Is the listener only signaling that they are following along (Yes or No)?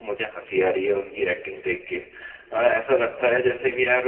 Yes